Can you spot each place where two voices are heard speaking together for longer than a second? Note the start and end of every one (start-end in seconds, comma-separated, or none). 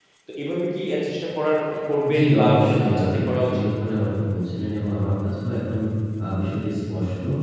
2.1-3.6